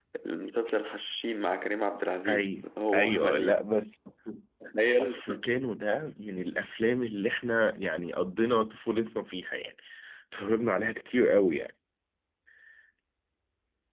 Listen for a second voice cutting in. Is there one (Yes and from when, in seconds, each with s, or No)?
Yes, from 2.3 s